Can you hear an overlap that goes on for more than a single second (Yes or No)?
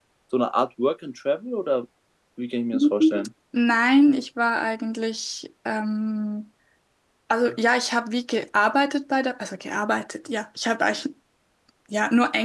No